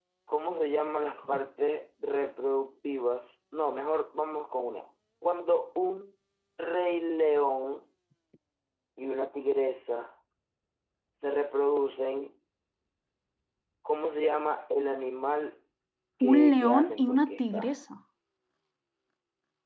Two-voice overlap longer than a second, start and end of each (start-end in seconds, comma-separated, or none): 16.2-17.7